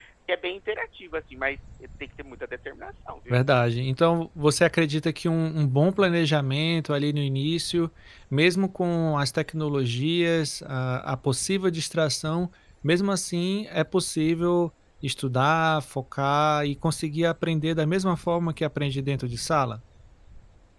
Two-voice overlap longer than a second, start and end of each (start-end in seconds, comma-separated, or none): none